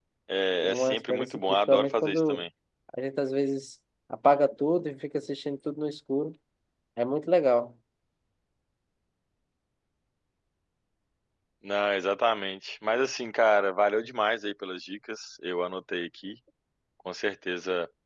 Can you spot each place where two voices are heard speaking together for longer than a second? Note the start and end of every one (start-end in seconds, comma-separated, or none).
0.6-2.4